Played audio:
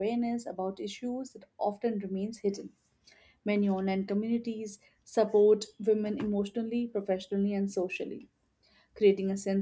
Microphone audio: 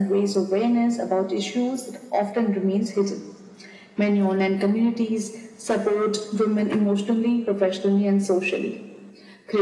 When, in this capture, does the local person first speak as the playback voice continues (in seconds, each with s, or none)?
none